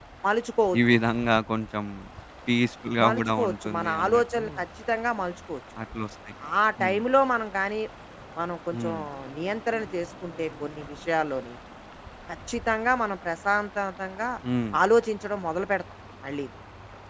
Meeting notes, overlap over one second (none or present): present